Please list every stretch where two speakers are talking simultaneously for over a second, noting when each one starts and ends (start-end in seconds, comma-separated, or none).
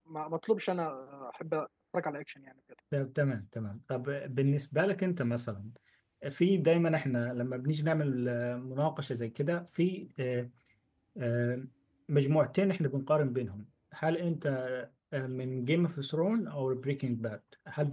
none